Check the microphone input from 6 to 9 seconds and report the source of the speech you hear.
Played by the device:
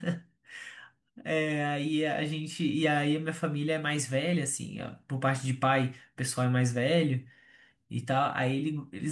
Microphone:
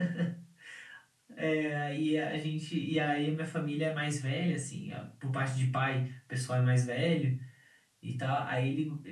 echo only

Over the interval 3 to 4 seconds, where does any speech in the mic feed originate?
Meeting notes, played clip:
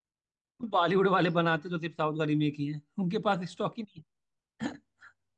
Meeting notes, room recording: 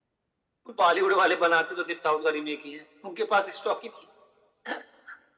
echo only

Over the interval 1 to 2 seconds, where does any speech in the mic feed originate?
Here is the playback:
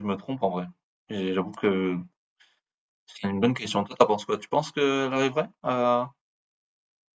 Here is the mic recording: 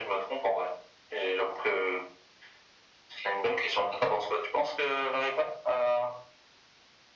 echo only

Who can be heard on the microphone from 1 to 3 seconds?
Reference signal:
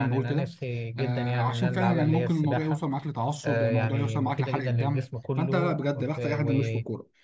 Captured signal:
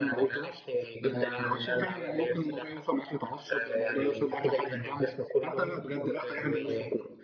echo only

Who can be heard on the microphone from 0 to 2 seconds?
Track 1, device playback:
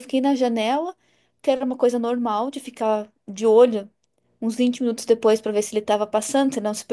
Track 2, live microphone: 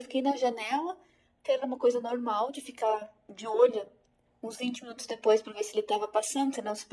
echo only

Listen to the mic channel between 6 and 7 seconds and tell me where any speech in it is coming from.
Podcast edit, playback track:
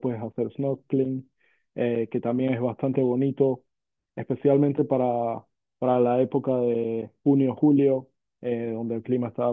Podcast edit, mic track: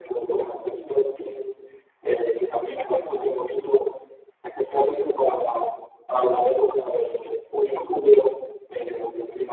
echo only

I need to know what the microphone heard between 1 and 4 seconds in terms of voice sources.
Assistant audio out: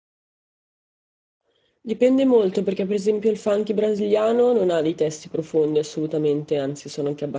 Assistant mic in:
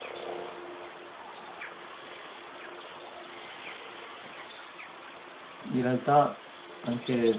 neither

